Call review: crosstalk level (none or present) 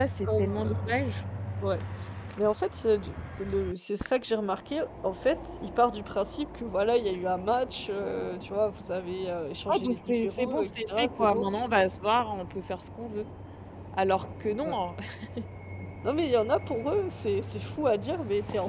present